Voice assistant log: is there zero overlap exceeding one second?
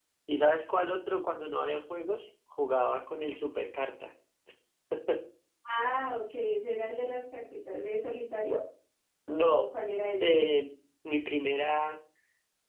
Yes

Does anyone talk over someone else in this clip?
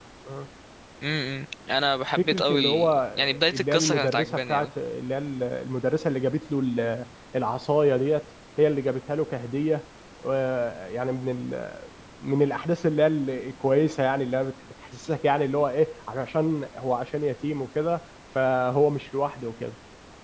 Yes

